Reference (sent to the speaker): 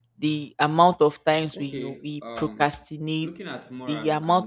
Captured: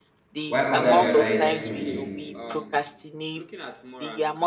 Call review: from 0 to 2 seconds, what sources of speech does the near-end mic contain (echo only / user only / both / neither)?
both